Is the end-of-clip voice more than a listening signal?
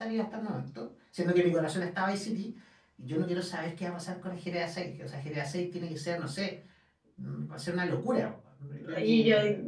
Yes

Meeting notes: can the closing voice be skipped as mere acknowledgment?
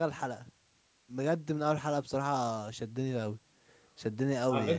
No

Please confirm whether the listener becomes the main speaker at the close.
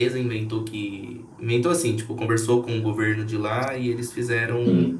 No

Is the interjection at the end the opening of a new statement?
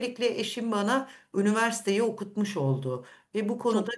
No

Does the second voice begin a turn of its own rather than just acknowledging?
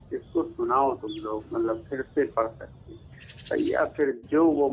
No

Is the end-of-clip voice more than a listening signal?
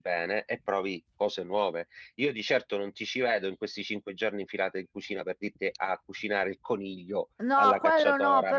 Yes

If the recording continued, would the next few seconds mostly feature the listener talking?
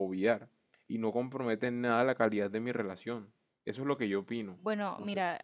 Yes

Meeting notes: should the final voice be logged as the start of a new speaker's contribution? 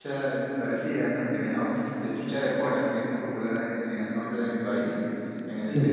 No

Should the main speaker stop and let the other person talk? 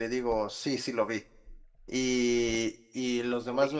No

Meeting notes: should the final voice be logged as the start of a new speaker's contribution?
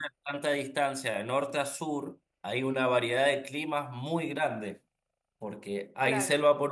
No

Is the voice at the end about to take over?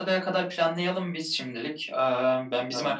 No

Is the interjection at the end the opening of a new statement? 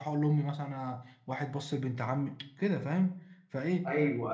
No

